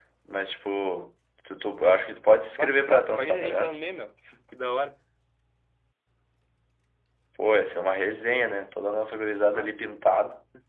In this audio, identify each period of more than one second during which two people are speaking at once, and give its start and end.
2.5-3.8

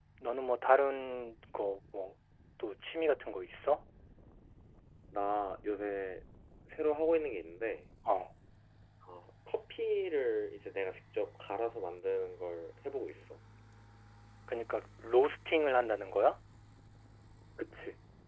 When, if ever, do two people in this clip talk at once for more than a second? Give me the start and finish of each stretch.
none

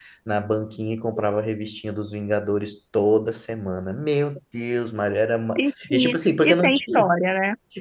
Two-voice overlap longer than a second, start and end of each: 5.6-7.1

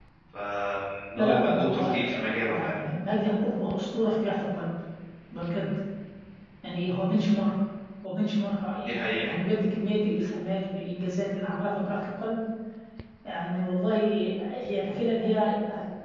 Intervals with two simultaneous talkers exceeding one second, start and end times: 1.2-2.8

